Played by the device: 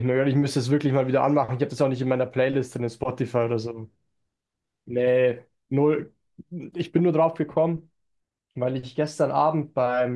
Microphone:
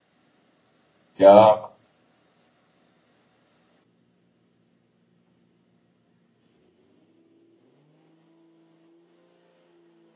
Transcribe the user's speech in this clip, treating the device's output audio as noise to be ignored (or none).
Ja,